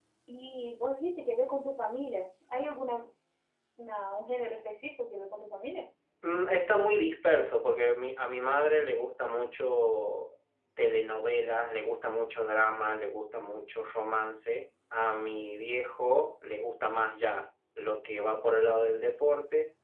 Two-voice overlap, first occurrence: none

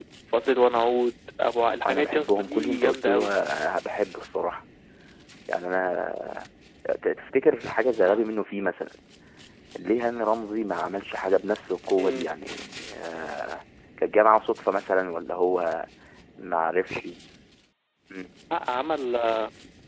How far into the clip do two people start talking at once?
1.8 s

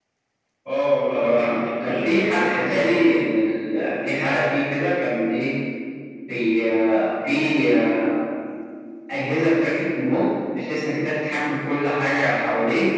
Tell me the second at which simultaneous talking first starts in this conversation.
1.1 s

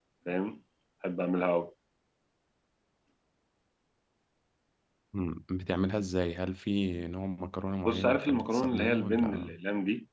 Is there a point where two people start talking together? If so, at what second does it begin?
7.8 s

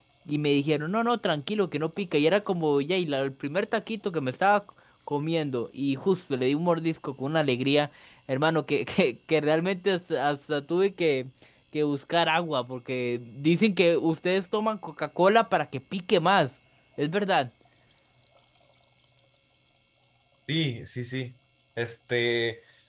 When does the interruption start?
none

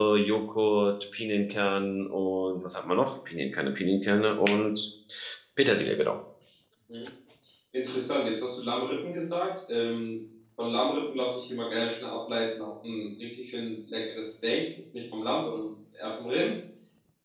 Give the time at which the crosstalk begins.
none

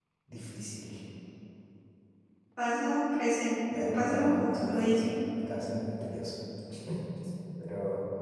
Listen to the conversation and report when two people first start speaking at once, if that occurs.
3.7 s

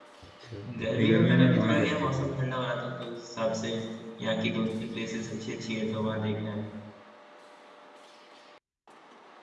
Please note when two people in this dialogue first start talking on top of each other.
0.8 s

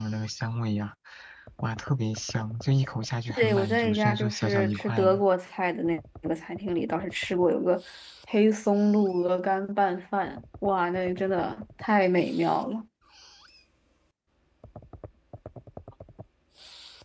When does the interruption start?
3.3 s

